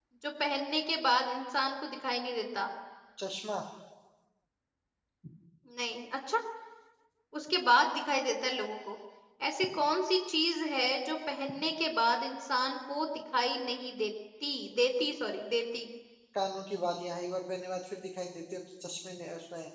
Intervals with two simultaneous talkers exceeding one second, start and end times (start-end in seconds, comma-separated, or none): none